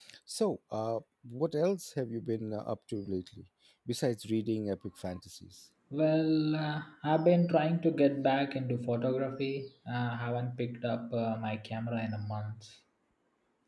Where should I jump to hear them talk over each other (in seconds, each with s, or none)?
none